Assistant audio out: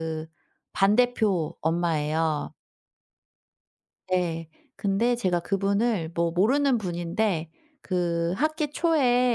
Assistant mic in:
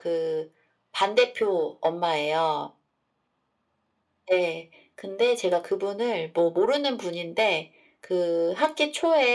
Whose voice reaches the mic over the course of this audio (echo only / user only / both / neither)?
echo only